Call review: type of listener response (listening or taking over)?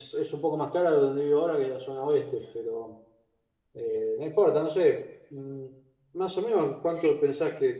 listening